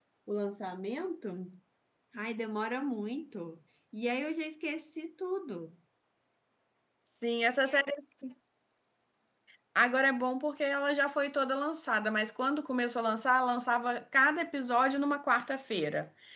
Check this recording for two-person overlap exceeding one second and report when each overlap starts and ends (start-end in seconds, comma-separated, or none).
none